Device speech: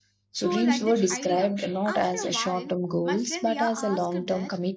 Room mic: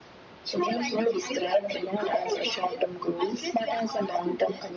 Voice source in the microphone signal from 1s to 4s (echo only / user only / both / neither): echo only